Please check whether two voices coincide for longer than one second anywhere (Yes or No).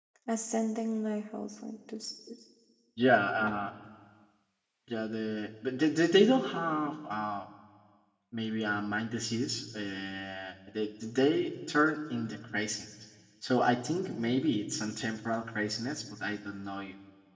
No